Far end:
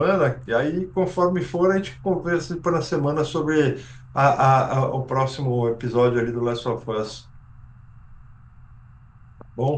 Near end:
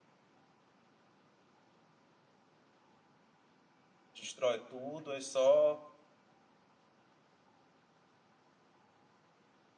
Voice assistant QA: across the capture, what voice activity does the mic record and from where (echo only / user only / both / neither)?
user only